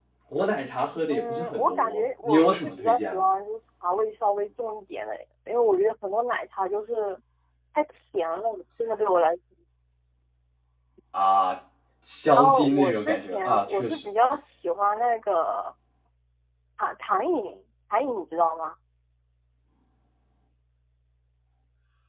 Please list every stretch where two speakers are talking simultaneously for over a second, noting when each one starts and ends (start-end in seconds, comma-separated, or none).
1.1-3.2, 12.4-14.1